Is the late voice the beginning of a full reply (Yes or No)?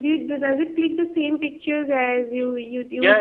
Yes